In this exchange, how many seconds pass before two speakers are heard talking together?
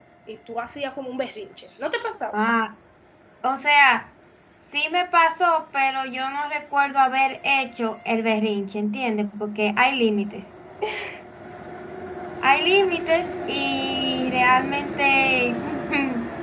none

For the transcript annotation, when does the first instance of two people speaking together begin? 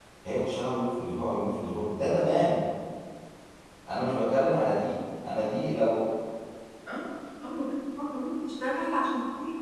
none

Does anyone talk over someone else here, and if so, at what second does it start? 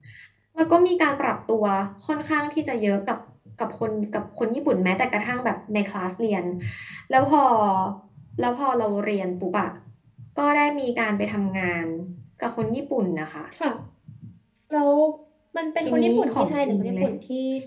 15.8 s

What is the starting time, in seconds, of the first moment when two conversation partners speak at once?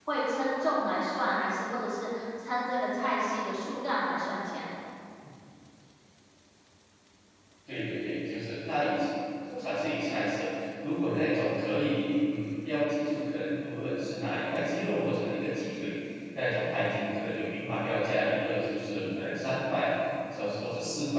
none

